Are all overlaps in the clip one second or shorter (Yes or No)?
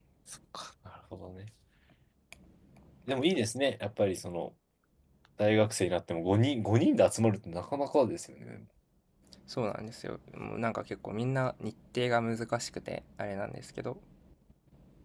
Yes